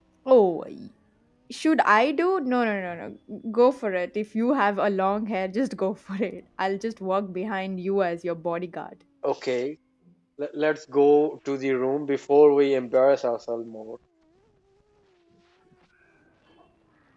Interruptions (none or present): none